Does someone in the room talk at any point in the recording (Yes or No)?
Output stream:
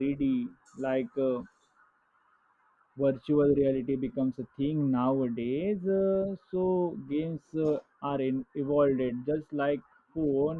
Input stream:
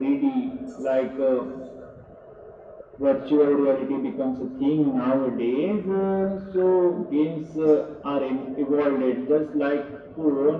No